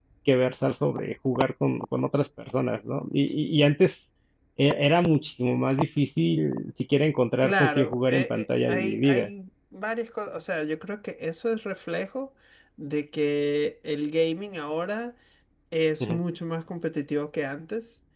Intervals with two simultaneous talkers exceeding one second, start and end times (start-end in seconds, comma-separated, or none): 7.4-9.2